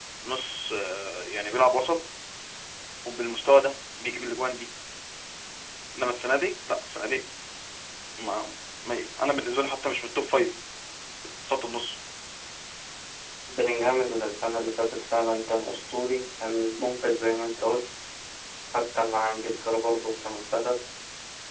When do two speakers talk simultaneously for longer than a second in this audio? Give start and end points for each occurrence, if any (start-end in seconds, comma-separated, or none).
none